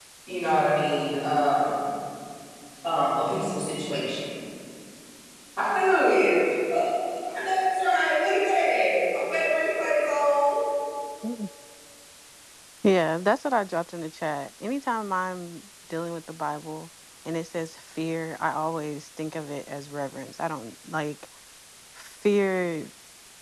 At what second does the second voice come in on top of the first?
none

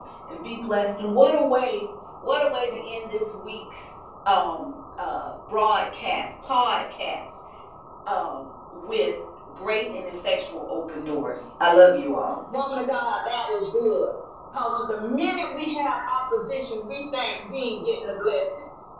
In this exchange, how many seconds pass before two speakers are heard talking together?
none

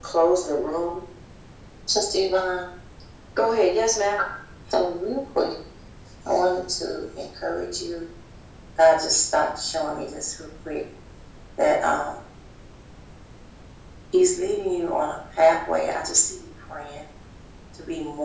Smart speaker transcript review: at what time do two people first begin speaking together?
none

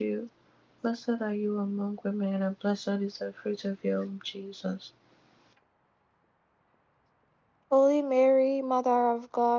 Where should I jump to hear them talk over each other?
none

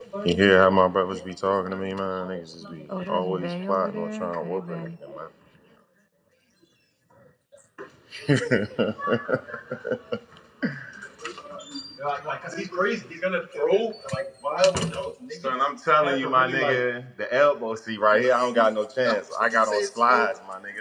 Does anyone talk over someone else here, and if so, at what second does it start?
3 s

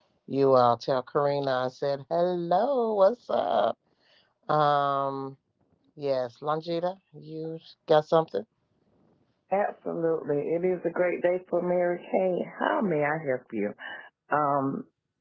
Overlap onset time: none

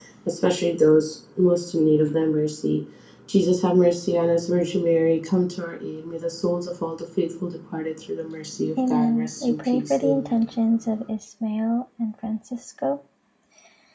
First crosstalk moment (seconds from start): 9 s

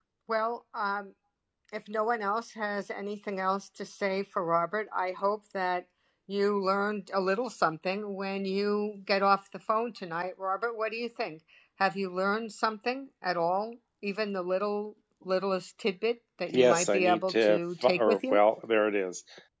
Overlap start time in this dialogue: 16 s

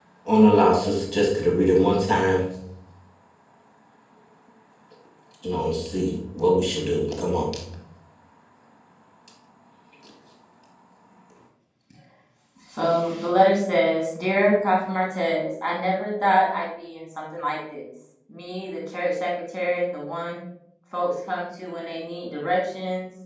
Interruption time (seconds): none

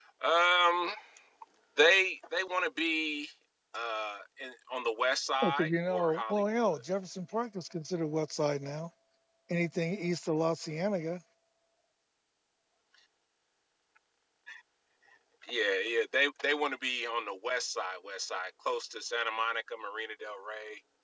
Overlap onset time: 5 s

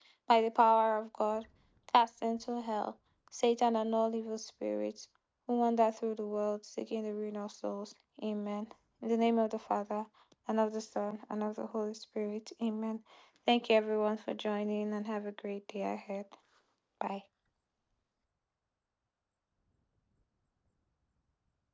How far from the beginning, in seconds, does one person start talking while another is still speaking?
none

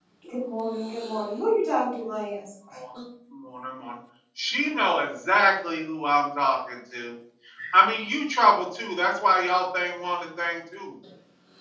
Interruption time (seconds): none

